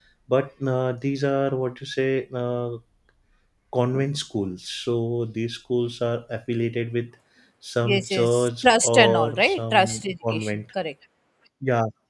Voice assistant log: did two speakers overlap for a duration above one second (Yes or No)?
Yes